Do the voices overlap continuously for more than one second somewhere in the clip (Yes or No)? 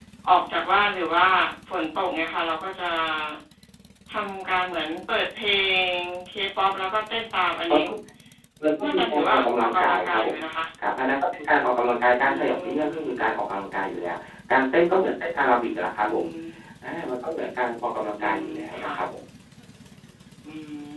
Yes